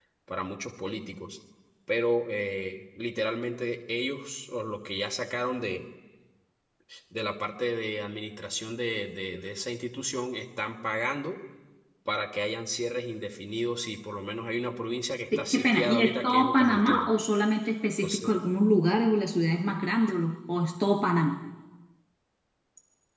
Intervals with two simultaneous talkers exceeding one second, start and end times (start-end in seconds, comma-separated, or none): 15.4-17.1